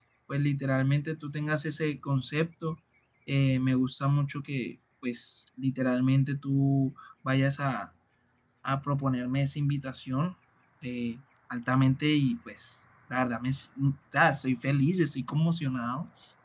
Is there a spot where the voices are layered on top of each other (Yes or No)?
No